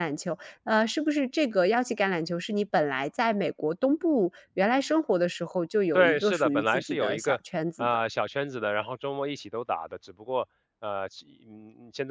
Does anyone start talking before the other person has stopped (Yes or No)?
Yes